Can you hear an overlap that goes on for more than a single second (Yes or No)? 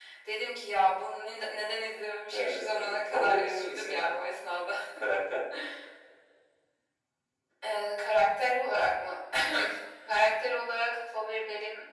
Yes